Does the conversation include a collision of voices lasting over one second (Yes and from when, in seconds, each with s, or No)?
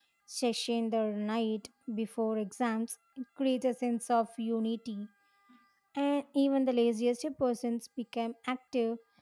No